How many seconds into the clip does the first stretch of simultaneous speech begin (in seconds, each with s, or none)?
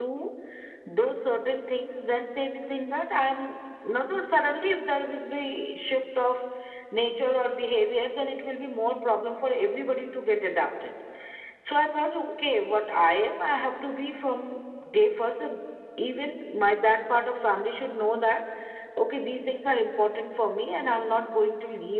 none